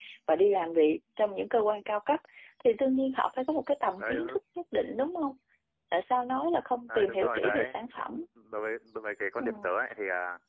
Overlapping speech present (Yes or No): Yes